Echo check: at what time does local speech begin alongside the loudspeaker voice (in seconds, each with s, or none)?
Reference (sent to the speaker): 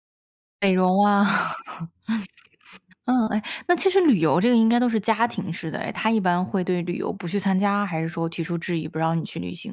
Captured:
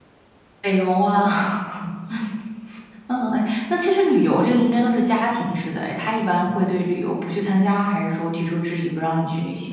none